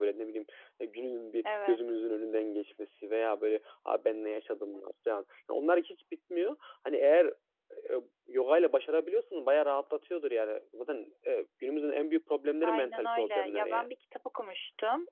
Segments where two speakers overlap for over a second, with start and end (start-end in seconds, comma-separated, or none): 12.6-13.9